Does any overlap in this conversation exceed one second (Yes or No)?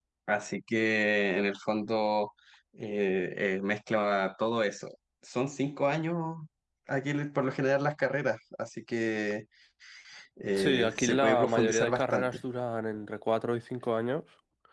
Yes